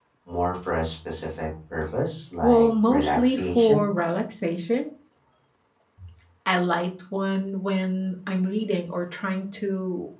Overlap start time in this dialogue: 2 s

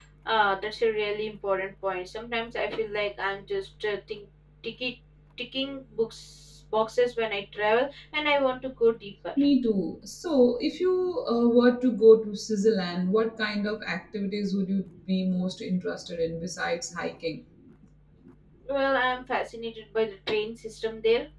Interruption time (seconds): none

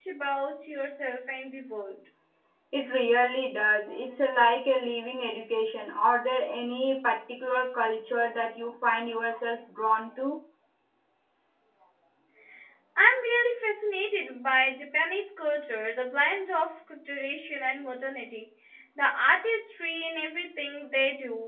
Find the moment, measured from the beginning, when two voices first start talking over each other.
none

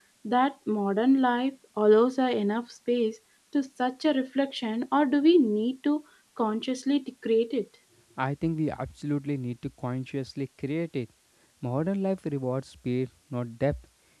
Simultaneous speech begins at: none

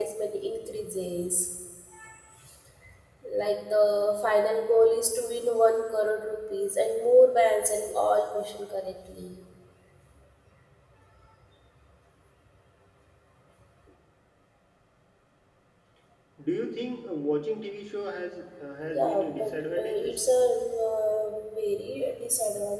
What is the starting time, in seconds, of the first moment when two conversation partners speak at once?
19 s

